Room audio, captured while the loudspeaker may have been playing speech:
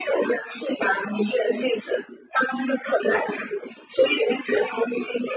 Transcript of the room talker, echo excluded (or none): none